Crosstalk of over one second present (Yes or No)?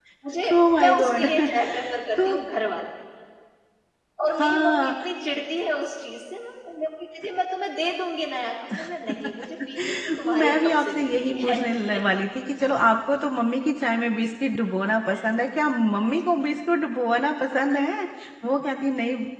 Yes